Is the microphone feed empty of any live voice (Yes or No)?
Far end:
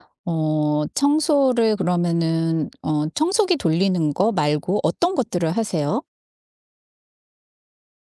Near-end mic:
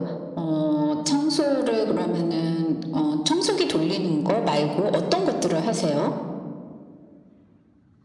Yes